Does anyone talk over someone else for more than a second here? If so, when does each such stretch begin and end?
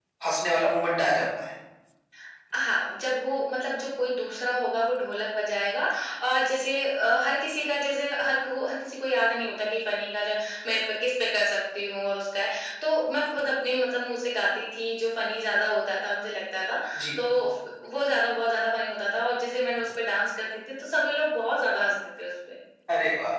none

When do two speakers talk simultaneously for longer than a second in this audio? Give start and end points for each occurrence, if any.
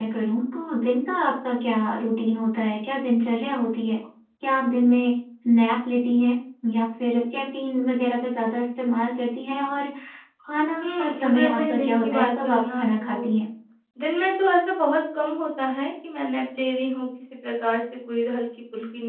10.8-13.3

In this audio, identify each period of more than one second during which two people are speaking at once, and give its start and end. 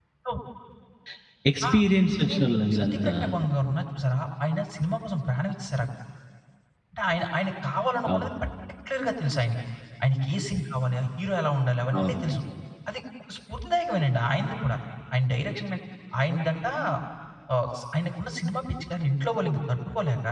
none

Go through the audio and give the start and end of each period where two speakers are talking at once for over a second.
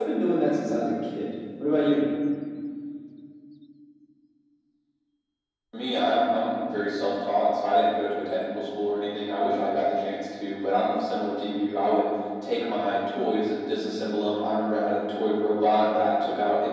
none

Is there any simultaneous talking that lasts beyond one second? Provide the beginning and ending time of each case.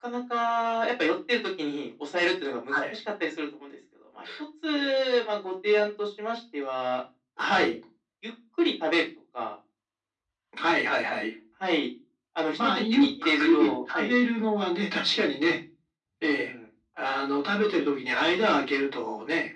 12.5-14.1

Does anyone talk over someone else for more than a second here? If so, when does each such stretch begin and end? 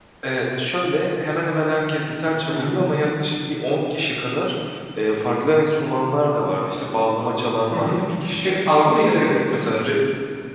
none

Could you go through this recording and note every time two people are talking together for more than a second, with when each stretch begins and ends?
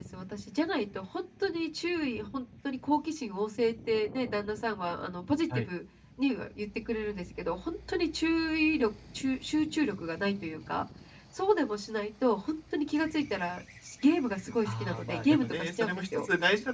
14.7-16.2

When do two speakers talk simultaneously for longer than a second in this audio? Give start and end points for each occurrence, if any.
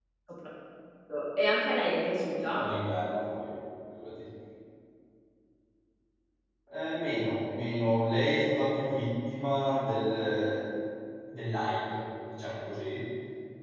none

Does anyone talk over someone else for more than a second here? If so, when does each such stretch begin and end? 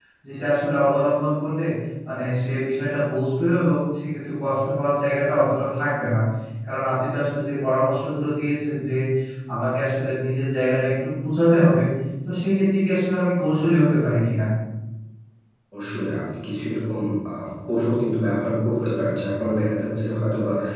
none

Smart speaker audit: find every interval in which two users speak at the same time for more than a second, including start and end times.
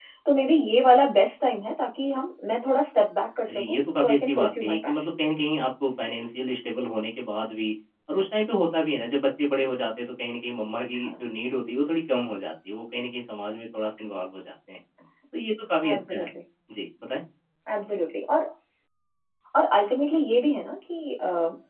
3.5-5.0

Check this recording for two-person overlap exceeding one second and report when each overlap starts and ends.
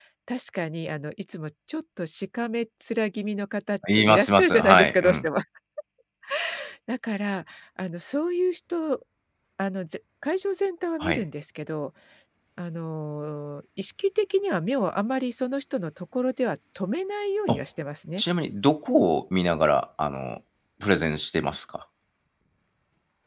4.0-5.2

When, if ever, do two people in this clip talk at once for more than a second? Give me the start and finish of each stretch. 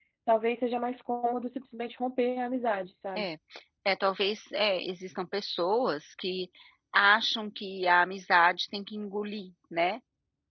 none

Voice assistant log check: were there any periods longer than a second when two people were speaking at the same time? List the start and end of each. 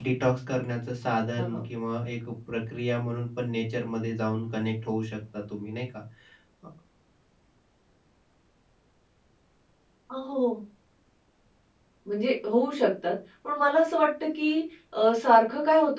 none

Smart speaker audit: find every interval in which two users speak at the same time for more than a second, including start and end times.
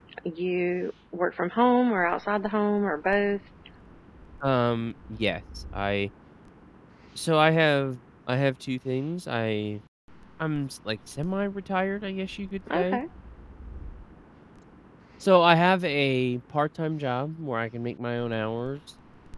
none

